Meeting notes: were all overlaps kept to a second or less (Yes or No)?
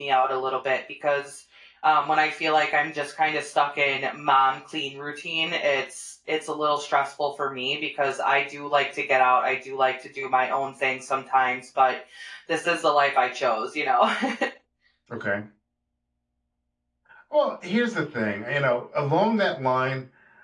Yes